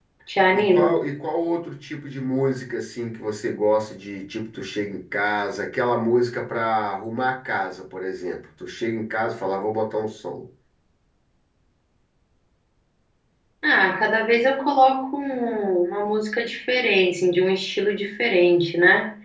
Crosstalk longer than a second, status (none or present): none